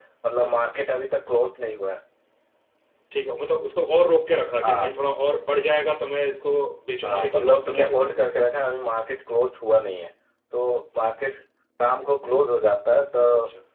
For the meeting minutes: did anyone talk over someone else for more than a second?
Yes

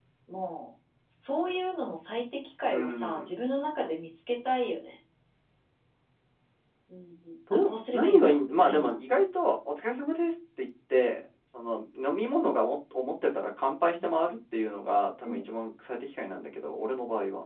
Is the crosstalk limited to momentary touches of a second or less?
No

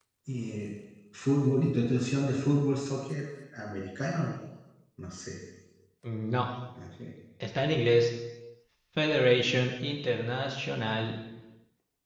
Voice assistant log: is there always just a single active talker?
Yes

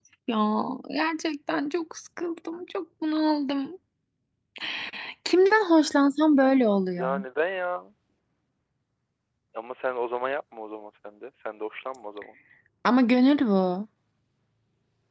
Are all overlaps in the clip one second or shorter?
Yes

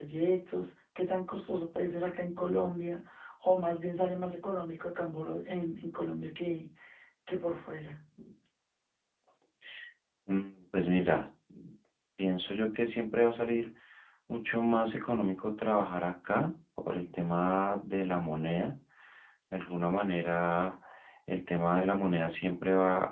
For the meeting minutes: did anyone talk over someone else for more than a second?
No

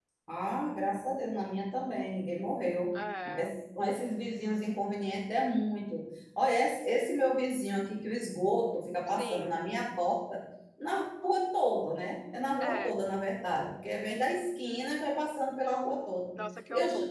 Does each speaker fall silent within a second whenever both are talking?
Yes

